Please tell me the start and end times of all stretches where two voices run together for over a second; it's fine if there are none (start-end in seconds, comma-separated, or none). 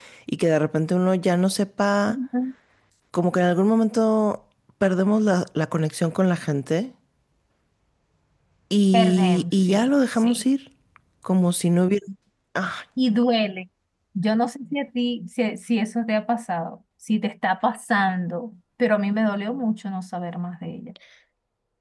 8.9-10.4